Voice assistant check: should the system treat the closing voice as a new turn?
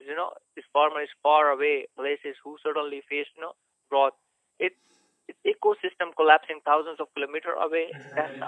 No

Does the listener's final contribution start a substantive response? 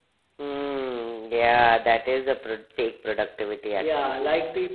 Yes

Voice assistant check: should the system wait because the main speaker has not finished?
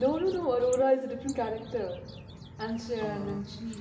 Yes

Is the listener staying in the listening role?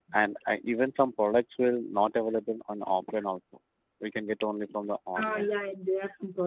No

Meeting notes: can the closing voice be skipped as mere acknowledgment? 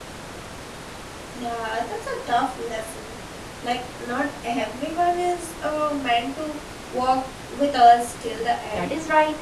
No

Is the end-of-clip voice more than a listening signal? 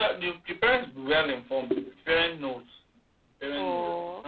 Yes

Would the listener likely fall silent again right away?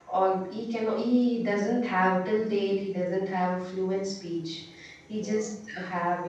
Yes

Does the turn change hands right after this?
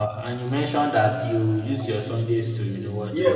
Yes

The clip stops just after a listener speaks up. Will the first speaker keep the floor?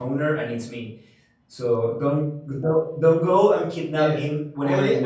No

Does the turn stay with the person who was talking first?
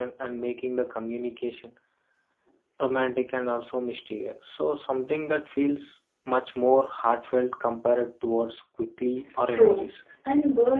No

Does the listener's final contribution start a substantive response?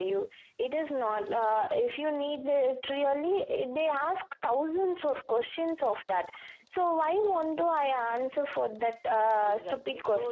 Yes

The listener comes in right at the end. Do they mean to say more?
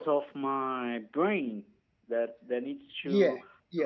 Yes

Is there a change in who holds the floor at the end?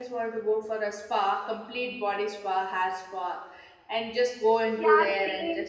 Yes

